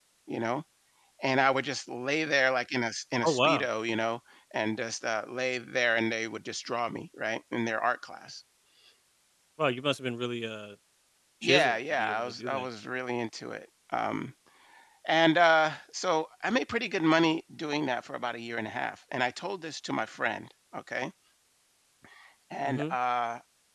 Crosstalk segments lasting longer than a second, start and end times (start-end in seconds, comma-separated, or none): 11.4-12.6